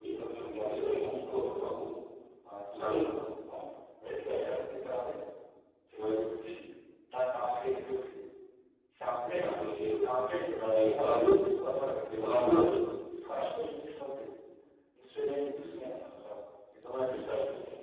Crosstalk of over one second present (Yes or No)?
Yes